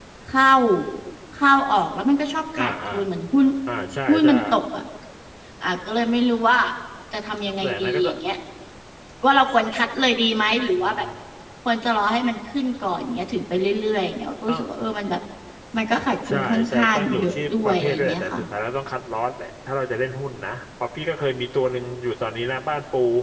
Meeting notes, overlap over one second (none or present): present